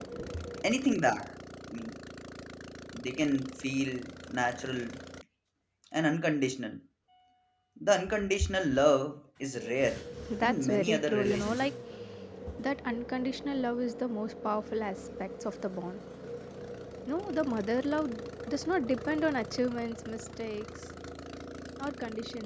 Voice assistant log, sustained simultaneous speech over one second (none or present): present